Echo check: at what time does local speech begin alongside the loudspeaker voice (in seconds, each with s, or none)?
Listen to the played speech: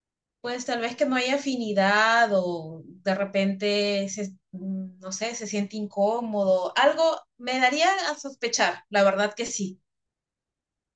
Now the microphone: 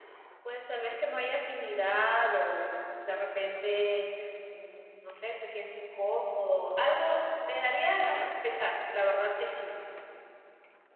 none